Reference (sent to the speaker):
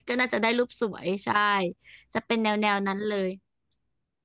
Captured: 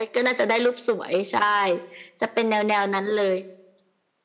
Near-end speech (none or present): none